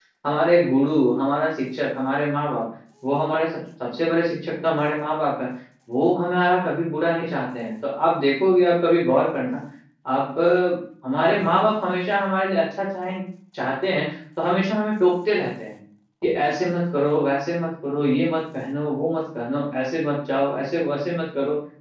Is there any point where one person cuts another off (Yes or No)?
No